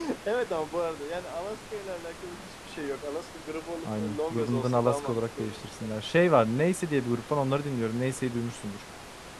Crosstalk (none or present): present